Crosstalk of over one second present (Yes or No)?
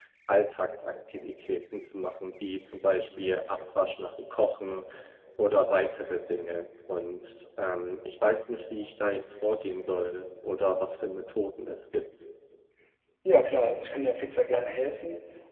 No